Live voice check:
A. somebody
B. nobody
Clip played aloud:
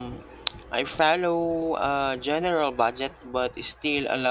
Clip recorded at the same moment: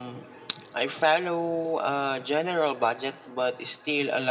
B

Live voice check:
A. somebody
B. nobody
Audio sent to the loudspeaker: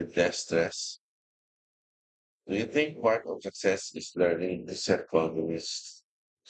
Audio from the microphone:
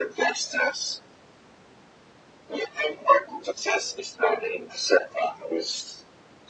B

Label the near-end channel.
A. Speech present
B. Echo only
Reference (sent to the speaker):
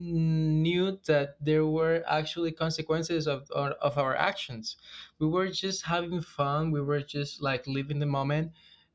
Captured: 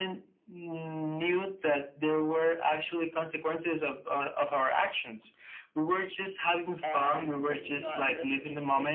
A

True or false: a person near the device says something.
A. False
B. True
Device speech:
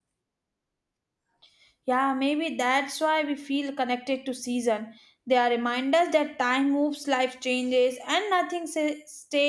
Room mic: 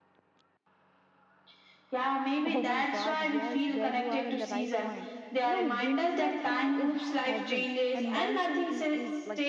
B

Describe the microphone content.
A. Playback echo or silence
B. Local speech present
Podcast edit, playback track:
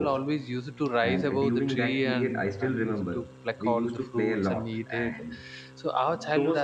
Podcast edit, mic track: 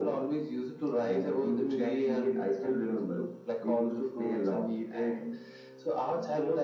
A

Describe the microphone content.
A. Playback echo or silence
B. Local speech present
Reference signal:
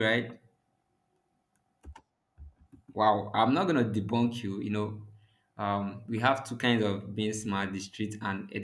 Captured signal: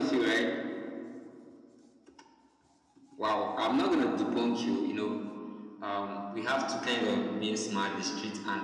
A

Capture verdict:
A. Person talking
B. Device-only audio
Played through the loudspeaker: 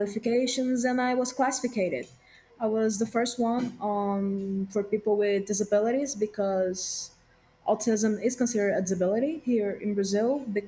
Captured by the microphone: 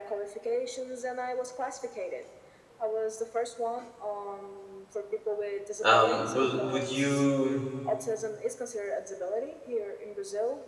A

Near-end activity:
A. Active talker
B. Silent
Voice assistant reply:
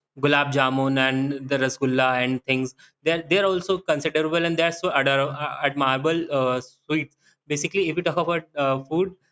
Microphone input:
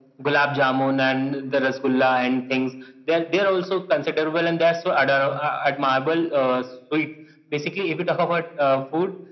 B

